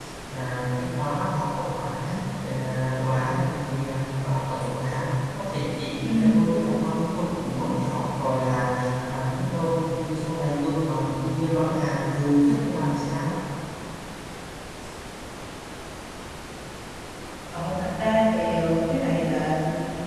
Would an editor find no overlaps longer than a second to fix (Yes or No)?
Yes